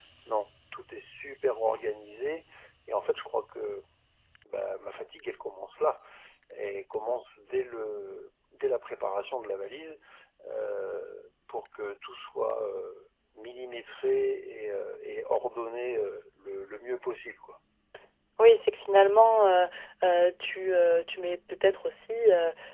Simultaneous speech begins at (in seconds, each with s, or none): none